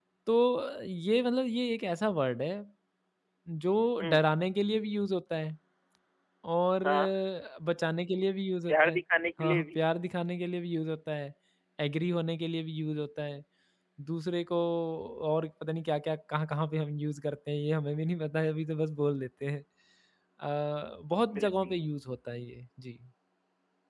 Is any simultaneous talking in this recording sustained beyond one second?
No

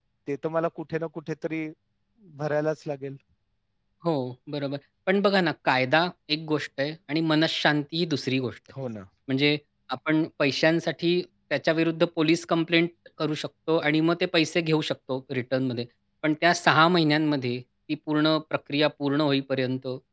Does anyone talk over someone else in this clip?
No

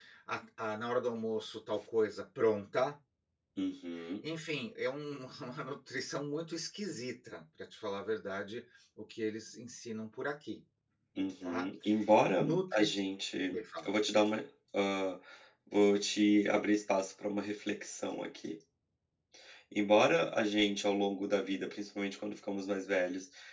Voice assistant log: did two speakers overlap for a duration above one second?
No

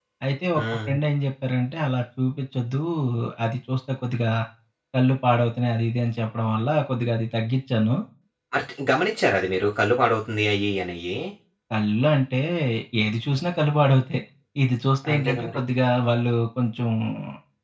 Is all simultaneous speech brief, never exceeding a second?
Yes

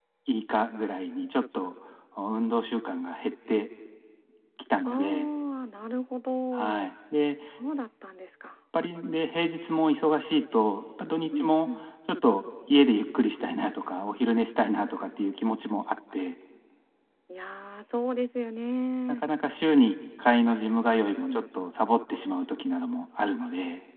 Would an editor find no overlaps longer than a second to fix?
Yes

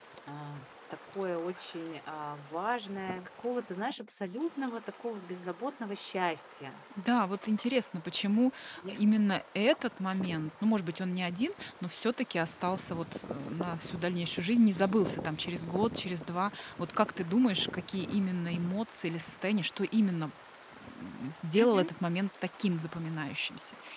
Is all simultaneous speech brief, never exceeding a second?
Yes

